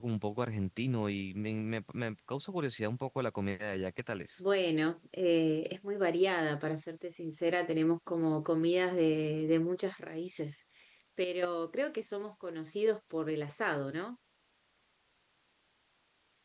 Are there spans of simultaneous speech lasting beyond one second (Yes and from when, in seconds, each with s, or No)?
No